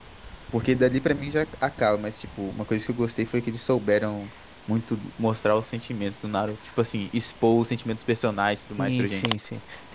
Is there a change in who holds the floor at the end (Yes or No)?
Yes